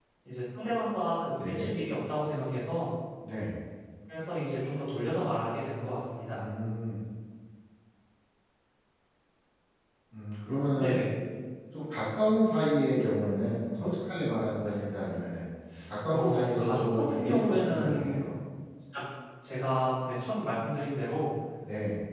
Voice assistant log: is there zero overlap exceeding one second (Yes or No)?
No